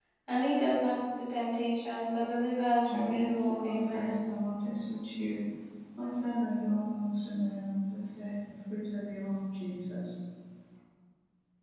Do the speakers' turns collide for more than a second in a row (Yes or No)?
Yes